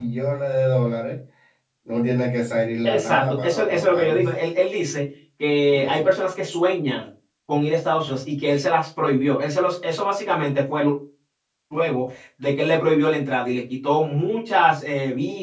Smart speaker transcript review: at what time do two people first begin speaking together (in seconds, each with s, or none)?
2.8 s